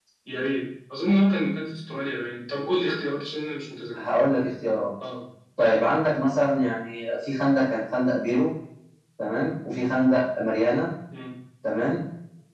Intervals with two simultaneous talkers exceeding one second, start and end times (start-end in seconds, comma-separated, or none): none